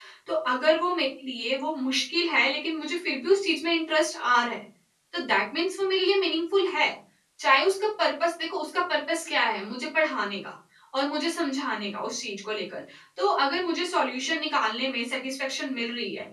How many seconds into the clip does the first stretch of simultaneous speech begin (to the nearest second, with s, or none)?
none